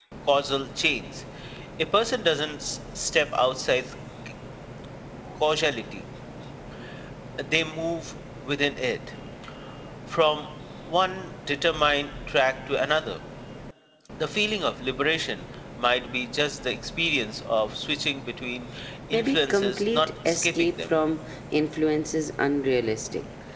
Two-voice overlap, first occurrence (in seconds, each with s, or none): 19.1 s